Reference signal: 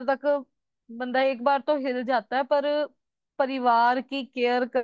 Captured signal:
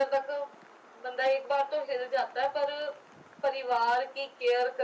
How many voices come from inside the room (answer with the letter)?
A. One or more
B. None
B